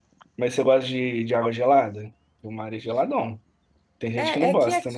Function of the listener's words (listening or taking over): taking over